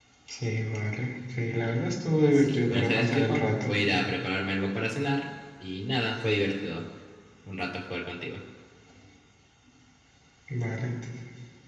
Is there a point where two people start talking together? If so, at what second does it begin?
2 s

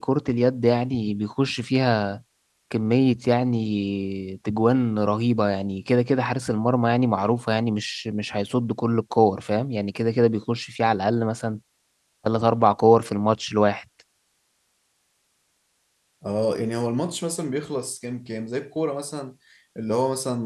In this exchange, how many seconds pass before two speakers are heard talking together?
none

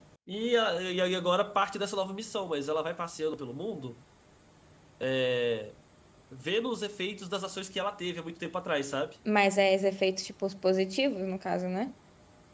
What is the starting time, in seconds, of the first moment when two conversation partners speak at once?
none

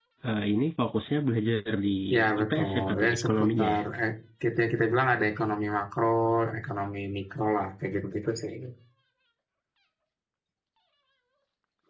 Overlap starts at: 2 s

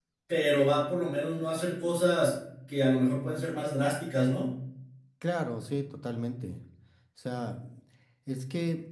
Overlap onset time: none

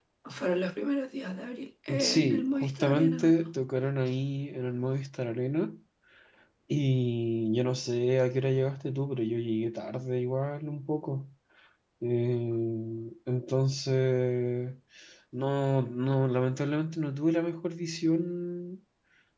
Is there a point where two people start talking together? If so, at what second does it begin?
2 s

